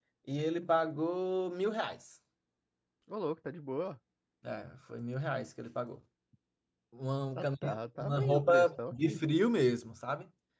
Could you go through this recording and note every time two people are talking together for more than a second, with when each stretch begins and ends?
7.4-9.2

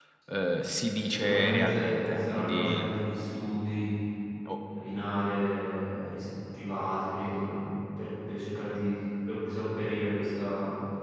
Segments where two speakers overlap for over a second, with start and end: 1.0-2.9

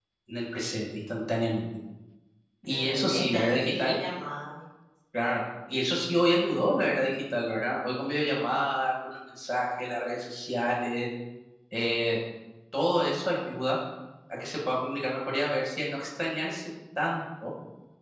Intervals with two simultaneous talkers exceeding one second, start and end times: 2.6-4.0

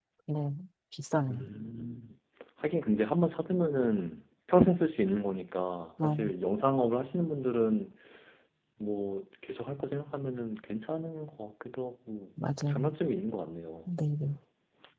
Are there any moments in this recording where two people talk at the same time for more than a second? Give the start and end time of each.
none

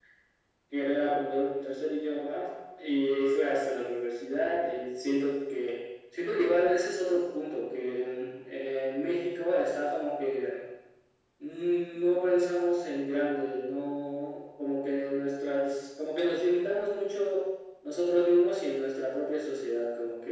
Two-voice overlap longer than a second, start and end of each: none

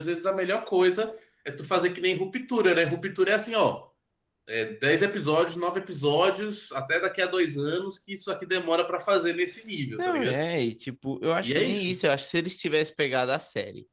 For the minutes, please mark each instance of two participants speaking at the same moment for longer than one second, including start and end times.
none

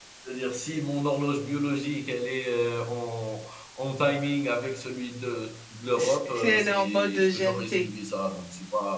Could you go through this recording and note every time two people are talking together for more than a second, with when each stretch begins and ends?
6.0-7.8

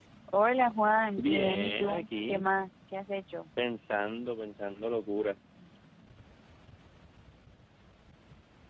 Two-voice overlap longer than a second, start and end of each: 1.2-2.4

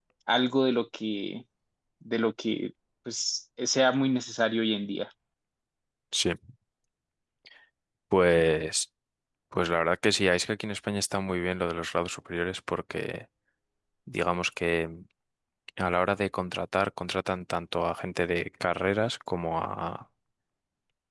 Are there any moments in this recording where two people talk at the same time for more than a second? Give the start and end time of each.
none

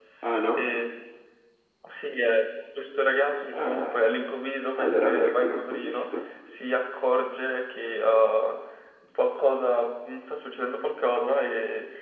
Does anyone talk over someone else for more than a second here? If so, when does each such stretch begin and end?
4.7-6.1

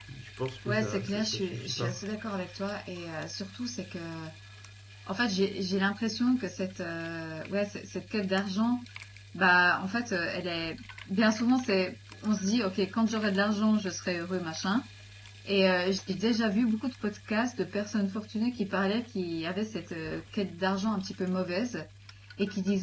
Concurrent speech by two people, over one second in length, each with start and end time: 0.7-2.0

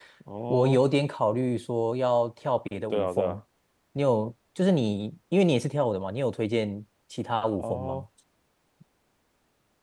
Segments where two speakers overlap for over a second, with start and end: none

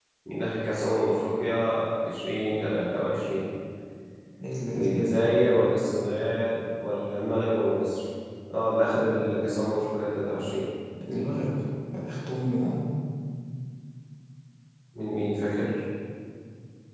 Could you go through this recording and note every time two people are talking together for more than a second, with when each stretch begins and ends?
none

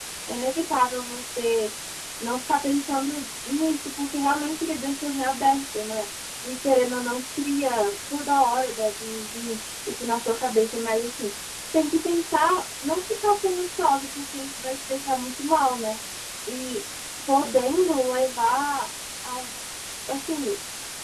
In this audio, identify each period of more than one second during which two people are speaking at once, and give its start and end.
none

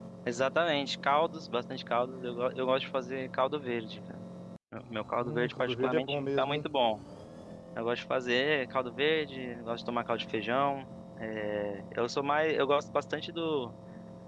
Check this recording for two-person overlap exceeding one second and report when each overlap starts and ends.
5.2-6.7

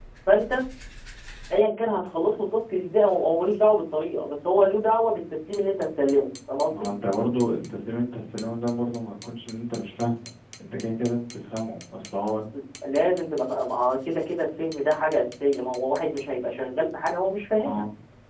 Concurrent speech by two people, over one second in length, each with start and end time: none

